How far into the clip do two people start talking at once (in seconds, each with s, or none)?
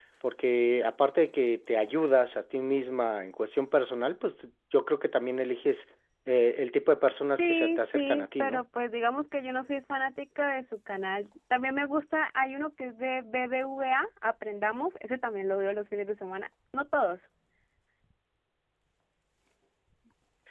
7.4 s